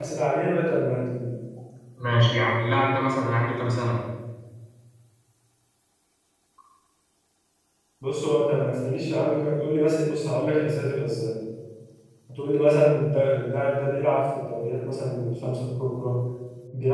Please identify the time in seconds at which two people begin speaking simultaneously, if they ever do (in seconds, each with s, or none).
none